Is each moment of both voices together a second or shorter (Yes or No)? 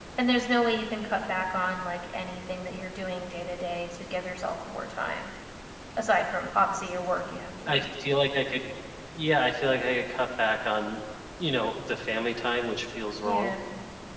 Yes